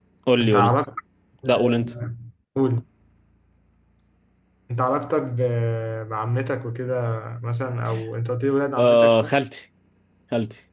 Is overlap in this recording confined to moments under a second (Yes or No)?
Yes